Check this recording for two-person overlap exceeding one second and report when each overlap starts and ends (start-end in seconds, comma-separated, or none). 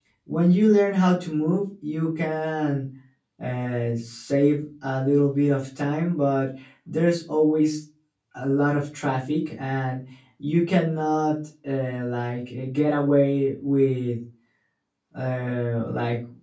none